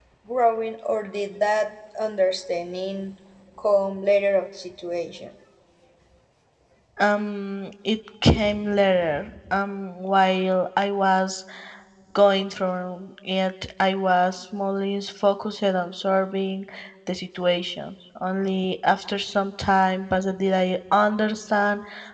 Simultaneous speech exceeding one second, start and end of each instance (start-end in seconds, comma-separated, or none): none